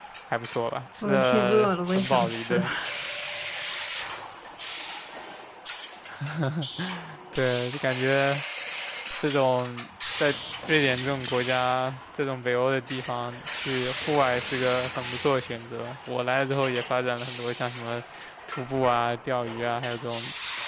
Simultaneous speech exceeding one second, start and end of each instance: 1.0-2.6

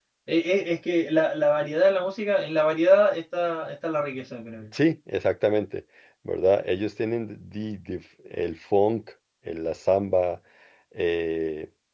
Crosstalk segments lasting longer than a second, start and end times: none

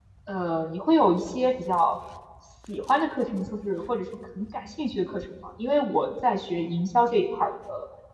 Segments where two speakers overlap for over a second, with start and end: none

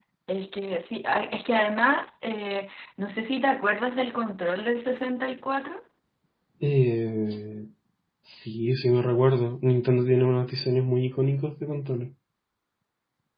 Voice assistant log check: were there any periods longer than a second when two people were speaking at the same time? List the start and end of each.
none

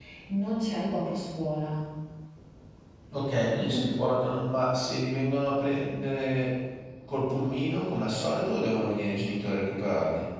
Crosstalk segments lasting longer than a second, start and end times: none

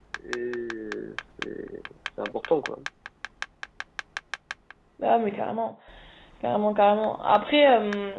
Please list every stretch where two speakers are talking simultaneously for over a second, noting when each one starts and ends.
none

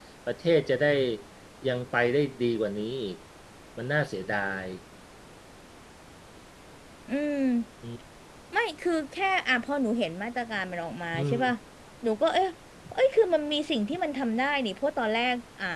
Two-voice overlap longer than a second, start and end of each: none

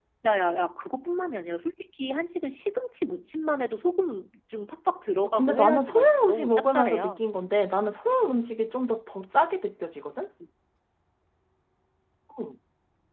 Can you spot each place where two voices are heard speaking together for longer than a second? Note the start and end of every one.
5.3-7.2

